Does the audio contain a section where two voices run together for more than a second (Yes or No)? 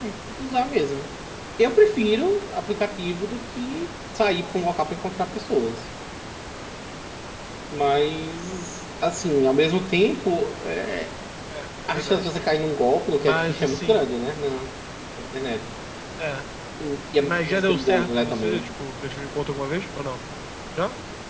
Yes